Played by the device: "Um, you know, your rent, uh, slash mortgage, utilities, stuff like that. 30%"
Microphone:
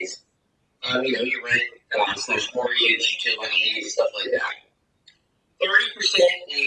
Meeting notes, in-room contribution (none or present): none